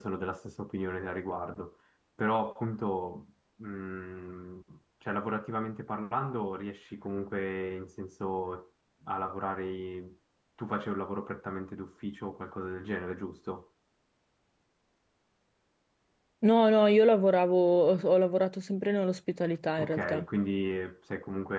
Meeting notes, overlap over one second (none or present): none